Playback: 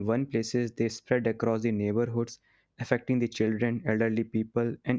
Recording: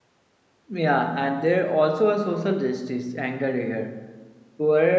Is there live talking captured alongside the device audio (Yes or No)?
Yes